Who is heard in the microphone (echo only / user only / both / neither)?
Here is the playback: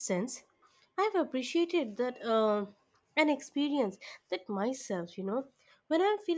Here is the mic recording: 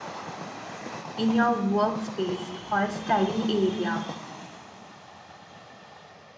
user only